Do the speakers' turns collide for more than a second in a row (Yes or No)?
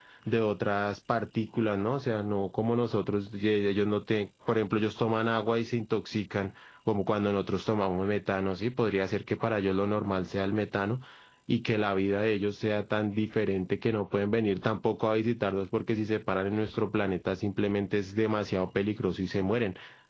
No